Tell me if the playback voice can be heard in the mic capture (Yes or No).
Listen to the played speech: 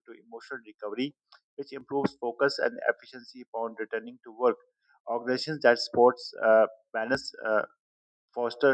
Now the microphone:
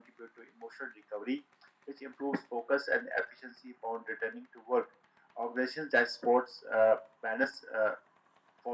Yes